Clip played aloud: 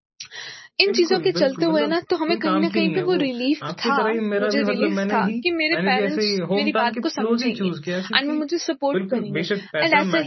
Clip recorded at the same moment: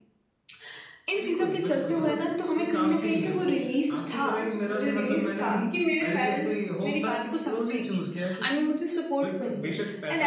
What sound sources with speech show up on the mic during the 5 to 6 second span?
echo only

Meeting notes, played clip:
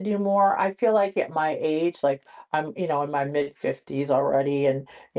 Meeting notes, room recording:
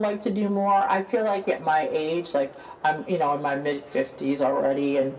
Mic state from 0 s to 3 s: echo only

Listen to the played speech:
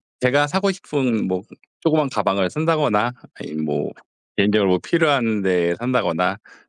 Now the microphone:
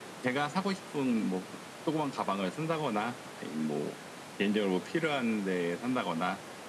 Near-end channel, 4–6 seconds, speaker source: echo only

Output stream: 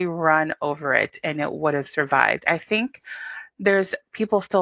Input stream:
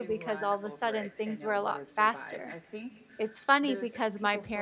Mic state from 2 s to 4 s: both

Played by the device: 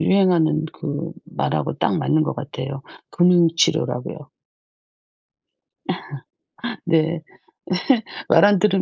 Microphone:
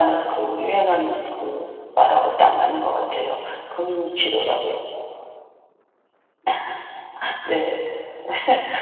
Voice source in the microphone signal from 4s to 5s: echo only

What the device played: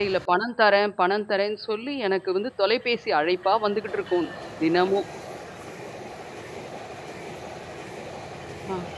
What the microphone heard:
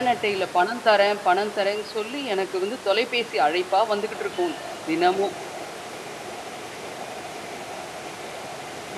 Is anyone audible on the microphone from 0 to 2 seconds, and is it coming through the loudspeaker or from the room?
echo only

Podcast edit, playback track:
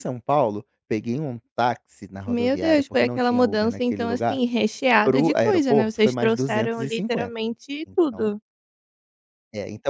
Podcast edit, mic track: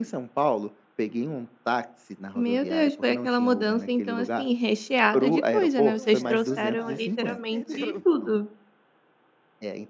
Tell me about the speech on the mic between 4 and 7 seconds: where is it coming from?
both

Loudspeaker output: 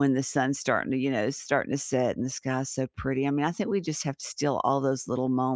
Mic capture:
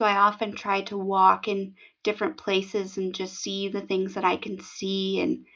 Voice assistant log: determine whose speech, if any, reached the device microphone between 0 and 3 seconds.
user only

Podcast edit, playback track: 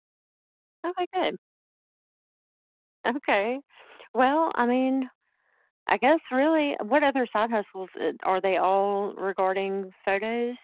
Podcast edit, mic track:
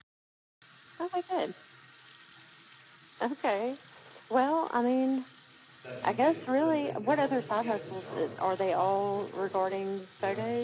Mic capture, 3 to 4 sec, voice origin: echo only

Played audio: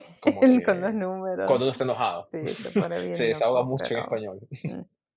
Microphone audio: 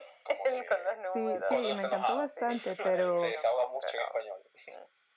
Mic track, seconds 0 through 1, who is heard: echo only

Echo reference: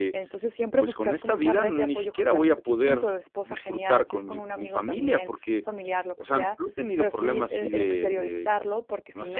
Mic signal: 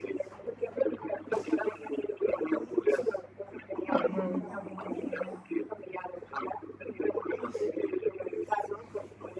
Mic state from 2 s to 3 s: echo only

